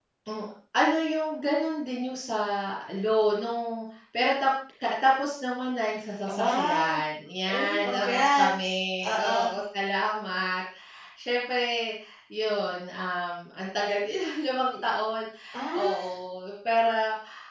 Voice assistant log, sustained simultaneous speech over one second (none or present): present